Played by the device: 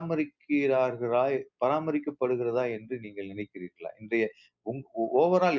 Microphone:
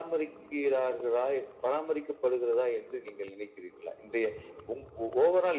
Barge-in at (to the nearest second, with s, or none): none